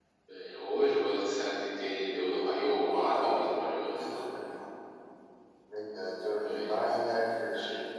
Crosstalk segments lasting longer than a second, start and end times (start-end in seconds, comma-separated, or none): 2.9-4.2